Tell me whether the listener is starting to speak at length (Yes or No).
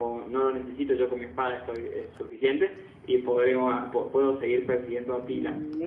Yes